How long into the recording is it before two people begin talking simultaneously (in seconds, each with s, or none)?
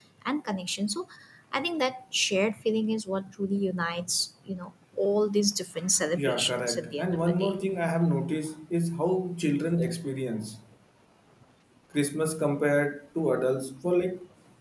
6.1 s